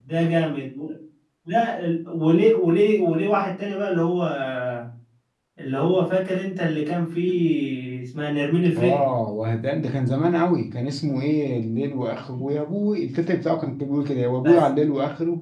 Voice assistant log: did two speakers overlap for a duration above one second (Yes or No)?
No